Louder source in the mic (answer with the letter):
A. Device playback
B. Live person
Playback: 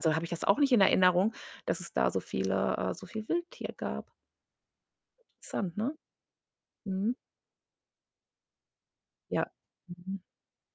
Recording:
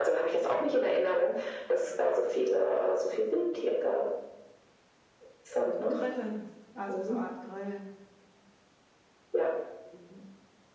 A